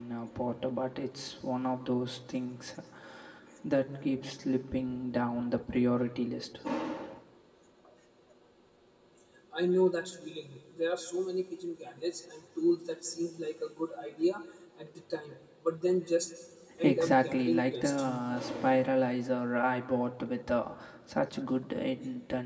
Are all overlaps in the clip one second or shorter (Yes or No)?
No